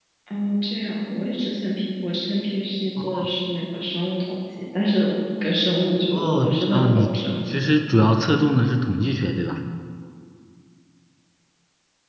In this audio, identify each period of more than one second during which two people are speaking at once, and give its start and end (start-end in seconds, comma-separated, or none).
6.1-7.7